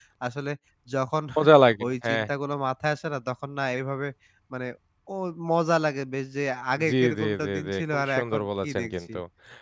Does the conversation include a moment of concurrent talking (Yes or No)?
Yes